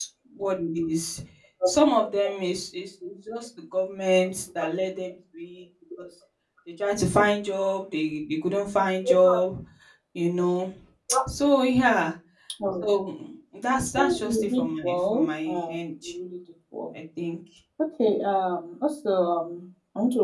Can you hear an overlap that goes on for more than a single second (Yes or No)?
Yes